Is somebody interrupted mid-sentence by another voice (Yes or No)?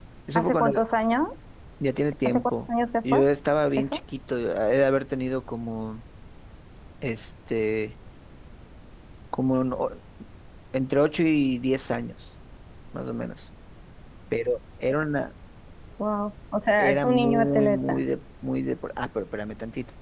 Yes